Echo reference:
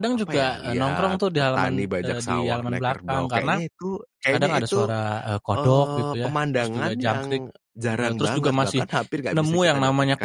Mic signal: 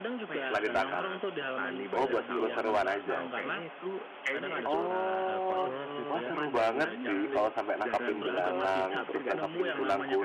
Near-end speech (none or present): present